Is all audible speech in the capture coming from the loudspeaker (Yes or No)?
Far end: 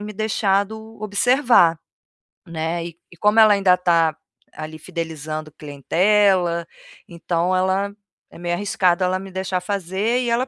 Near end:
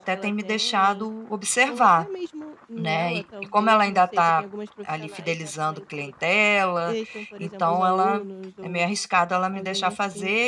No